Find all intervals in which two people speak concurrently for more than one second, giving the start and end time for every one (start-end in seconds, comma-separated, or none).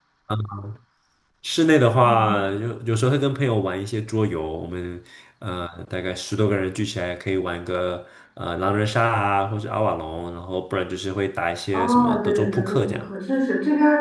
11.7-13.1